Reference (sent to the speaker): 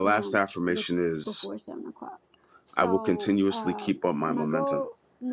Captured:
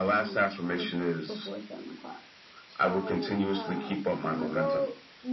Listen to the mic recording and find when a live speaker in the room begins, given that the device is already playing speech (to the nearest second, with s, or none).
none